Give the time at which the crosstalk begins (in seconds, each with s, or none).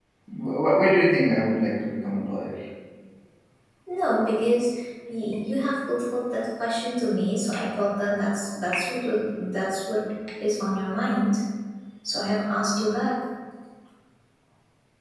none